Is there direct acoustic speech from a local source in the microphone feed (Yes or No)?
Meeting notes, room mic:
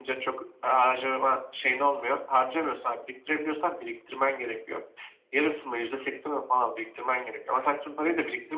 No